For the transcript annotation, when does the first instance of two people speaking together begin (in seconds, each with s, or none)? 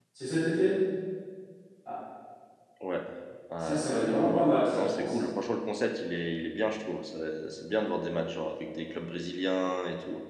3.6 s